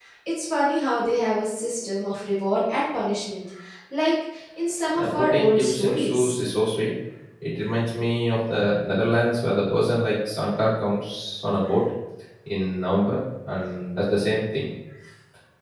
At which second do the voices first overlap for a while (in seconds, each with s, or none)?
5.0 s